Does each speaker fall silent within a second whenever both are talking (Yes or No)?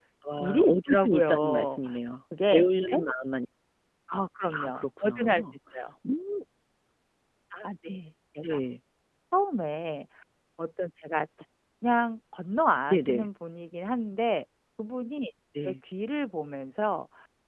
No